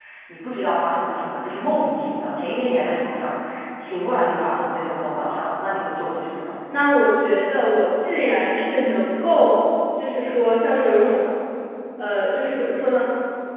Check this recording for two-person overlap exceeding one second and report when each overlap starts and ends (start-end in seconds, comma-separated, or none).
none